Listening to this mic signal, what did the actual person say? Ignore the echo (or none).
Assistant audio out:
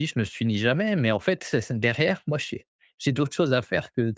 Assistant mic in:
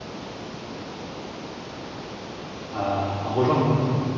à à rejoindre, quoi.